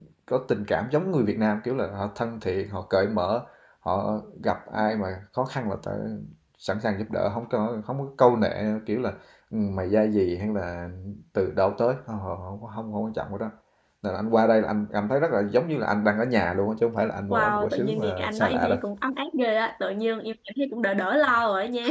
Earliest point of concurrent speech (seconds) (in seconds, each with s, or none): 17.3 s